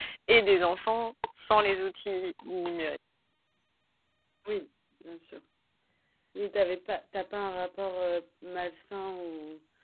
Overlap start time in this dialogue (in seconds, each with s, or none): none